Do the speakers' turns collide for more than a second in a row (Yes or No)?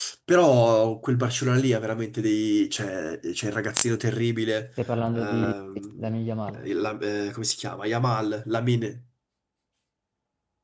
No